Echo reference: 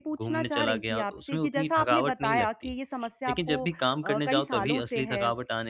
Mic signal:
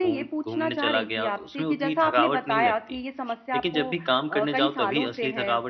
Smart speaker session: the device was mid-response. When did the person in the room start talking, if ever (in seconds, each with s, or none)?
none